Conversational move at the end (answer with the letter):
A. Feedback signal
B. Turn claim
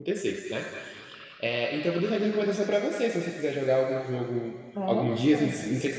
A